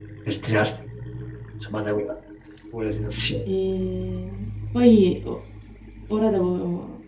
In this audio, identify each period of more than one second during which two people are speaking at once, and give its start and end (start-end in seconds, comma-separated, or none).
none